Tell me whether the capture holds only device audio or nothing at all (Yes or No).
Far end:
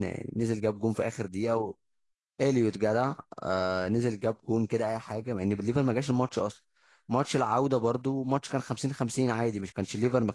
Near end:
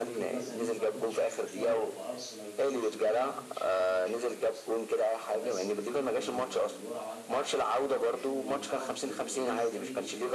No